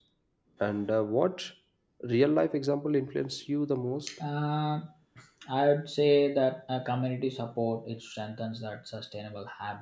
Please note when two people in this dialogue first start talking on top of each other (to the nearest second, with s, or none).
none